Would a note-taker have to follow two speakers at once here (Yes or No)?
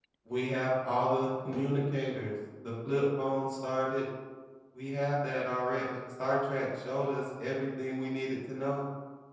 No